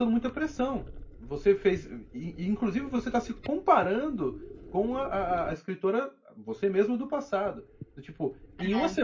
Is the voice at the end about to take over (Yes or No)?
No